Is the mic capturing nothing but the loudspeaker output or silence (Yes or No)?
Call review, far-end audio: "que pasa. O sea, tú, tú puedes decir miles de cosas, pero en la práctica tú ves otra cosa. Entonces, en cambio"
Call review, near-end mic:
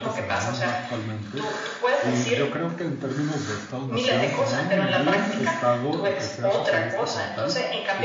No